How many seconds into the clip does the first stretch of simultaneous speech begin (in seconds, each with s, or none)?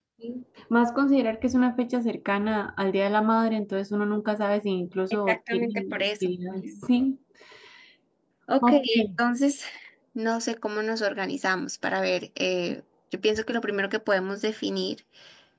5.3 s